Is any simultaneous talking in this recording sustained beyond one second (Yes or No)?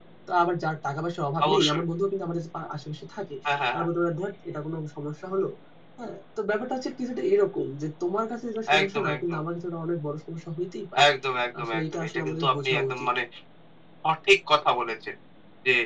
Yes